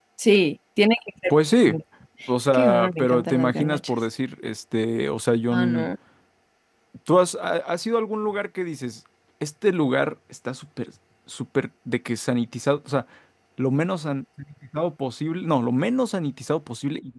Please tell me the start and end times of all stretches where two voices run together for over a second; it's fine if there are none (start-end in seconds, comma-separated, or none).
2.5-3.9